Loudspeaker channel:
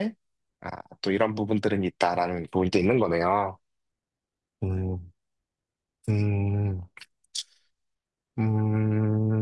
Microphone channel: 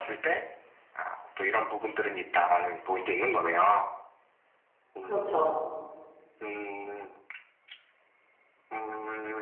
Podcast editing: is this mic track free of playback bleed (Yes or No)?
No